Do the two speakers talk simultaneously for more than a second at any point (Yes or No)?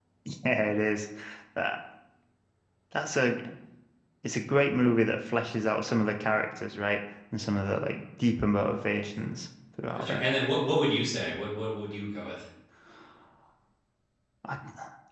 No